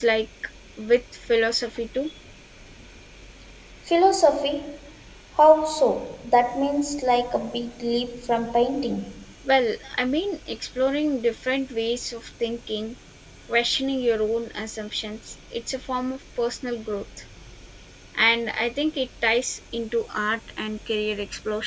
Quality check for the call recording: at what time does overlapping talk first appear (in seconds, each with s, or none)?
none